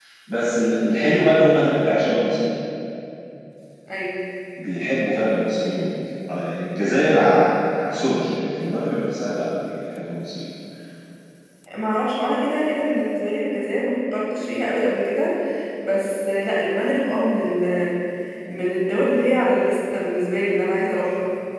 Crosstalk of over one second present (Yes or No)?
No